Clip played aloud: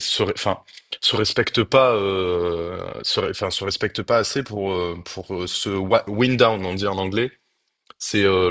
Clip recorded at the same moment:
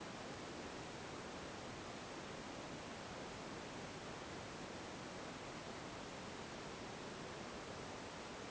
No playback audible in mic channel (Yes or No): Yes